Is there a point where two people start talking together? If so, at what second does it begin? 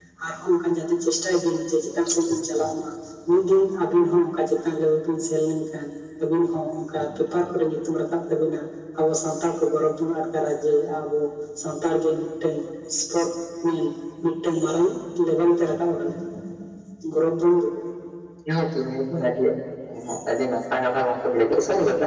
none

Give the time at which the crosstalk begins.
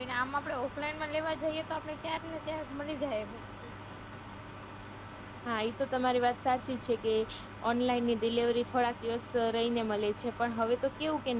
none

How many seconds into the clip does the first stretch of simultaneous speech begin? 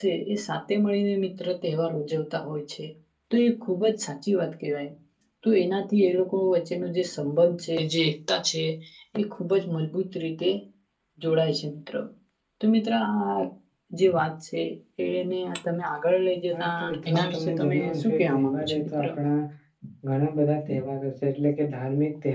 16.5 s

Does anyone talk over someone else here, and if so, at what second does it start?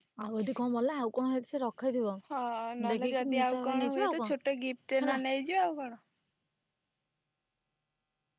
2.9 s

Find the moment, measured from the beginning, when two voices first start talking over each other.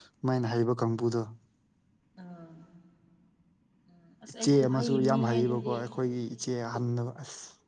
4.4 s

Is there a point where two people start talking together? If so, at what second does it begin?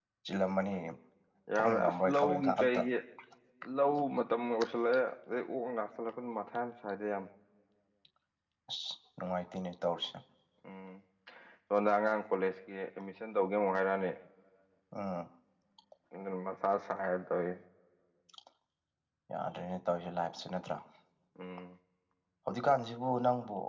1.6 s

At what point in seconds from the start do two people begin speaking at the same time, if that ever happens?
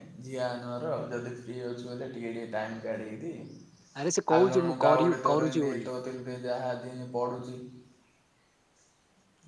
4.3 s

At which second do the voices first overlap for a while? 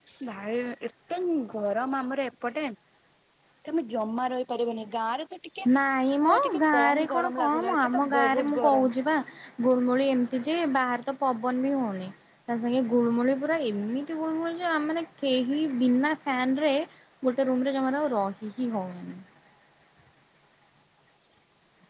6.2 s

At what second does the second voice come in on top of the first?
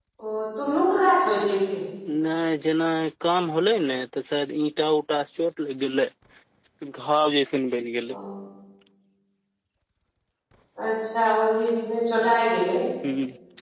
none

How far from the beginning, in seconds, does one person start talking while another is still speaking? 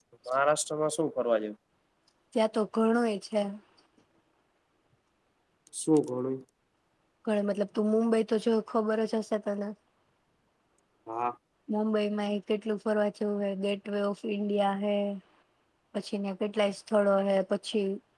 none

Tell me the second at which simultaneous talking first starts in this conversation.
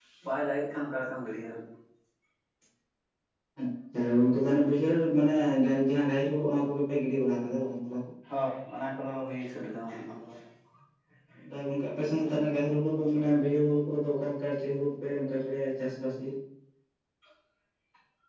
none

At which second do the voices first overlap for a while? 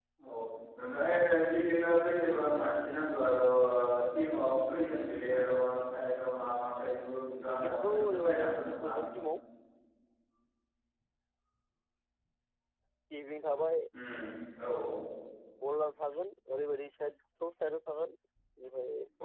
7.5 s

